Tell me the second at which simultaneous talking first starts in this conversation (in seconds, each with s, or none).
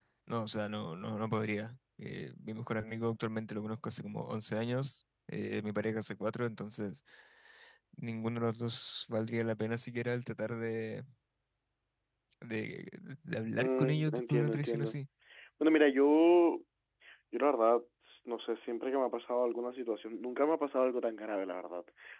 13.6 s